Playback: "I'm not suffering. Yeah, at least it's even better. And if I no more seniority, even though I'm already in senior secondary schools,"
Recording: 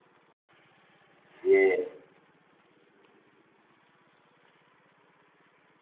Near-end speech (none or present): present